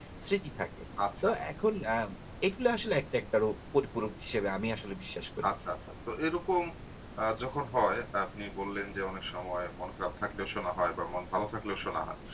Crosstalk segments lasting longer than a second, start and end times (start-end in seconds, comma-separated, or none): none